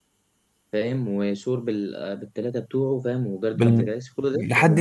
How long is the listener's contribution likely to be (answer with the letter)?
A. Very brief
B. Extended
B